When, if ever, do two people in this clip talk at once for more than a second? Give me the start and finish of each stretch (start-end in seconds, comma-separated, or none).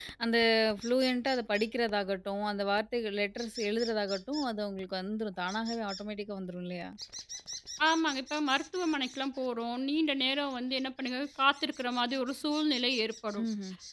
none